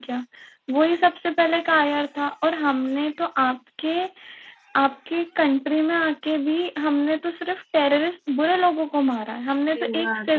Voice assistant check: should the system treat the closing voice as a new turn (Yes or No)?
No